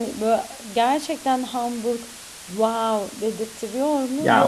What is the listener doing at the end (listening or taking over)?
taking over